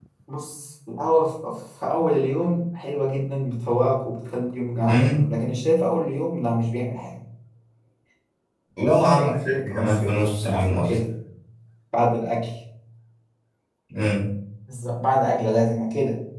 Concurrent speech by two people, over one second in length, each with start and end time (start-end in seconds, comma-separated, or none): 9.0-10.8